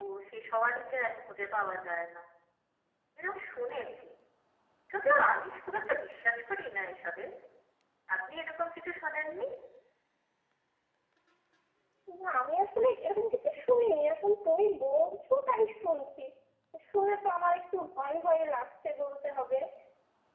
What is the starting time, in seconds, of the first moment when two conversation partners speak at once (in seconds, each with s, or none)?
none